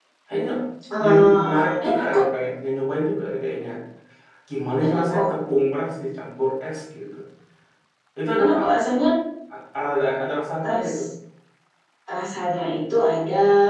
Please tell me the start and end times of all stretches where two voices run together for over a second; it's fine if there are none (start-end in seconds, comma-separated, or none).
1.0-2.2